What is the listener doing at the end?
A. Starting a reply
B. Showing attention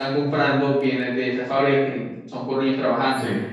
B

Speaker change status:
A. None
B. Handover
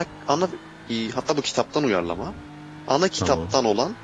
A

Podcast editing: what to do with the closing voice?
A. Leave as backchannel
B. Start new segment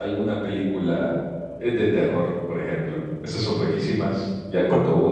A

